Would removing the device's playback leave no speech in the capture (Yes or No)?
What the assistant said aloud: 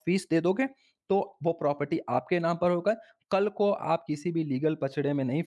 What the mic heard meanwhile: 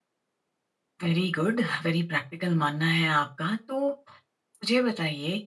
No